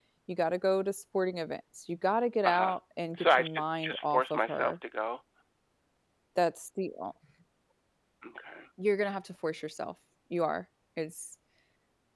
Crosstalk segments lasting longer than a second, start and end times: 3.2-4.7

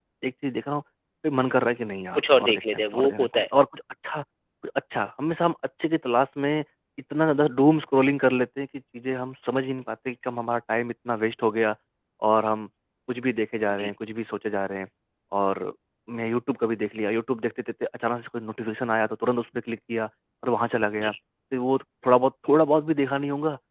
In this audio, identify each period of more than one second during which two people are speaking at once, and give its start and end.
2.2-3.4

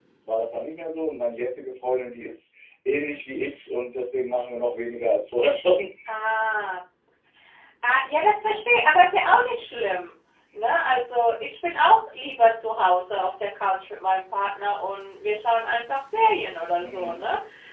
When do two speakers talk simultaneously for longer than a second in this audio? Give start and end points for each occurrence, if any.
none

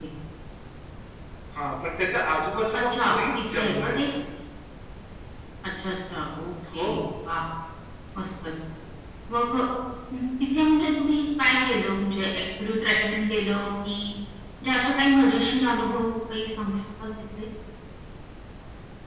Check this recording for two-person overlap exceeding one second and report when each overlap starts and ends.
2.7-4.0

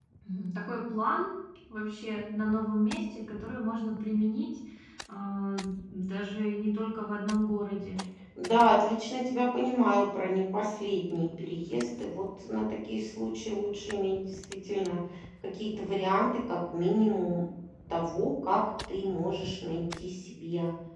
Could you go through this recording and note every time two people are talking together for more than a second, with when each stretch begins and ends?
none

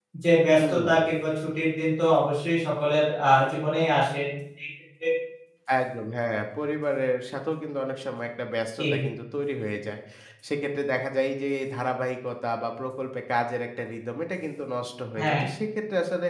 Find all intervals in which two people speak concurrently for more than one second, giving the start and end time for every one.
none

